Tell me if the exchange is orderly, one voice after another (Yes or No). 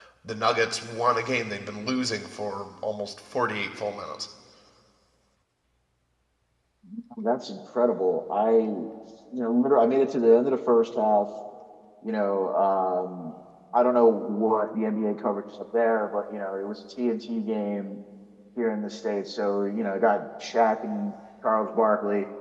Yes